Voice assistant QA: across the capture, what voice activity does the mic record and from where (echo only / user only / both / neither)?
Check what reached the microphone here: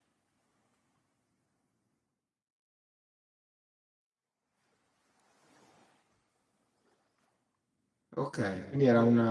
user only